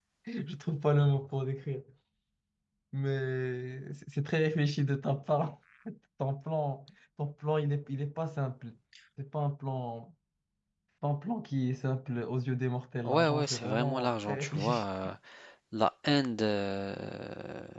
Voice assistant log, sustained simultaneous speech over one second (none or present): present